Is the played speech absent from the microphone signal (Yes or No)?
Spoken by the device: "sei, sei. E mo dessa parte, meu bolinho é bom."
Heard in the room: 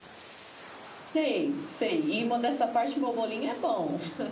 No